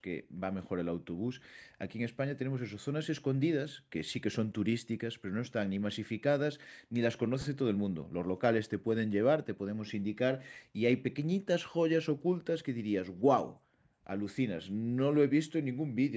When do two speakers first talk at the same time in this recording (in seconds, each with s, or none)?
none